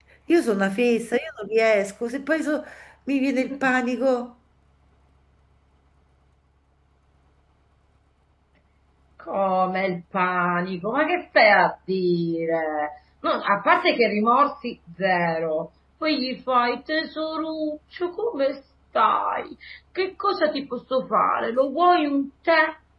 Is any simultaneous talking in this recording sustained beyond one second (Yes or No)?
No